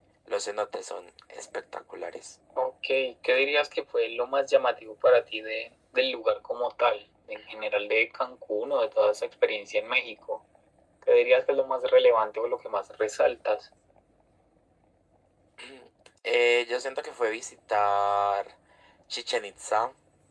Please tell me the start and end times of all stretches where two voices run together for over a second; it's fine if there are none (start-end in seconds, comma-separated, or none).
none